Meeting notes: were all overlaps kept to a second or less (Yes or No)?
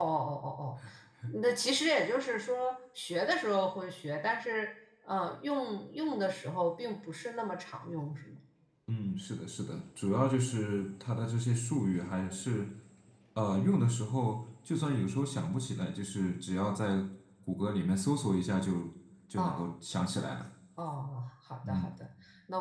Yes